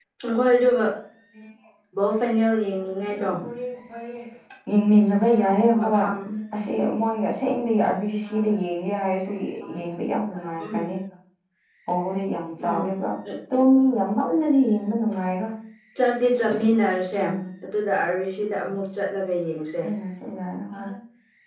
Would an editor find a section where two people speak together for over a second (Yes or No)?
No